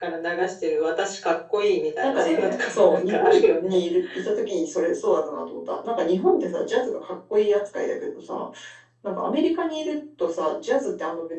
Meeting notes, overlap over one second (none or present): present